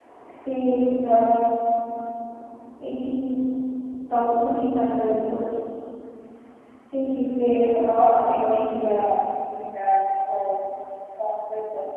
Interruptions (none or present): present